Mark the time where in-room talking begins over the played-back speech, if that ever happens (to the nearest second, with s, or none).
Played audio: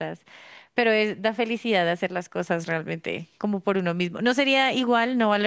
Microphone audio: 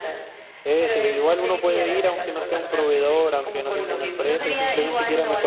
1 s